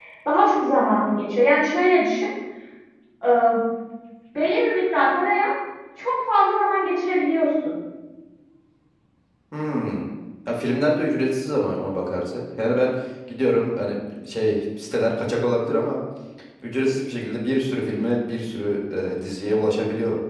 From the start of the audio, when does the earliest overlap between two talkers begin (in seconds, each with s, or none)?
none